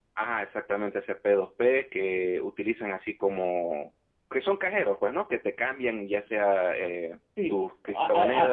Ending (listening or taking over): taking over